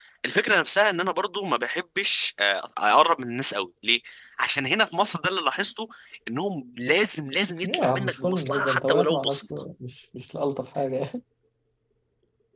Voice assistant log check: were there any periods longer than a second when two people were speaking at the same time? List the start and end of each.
7.6-9.4

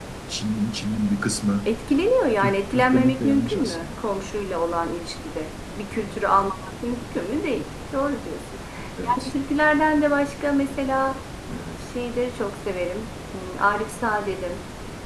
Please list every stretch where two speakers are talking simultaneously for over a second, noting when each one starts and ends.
2.4-3.9

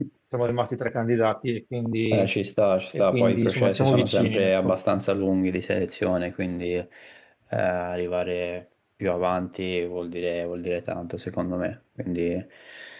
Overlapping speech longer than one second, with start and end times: 2.9-4.8

